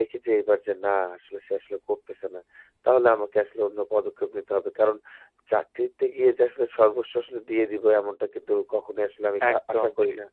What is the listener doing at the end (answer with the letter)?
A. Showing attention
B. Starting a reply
A